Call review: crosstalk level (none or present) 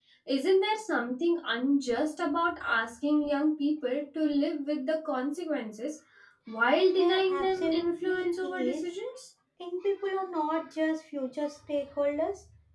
present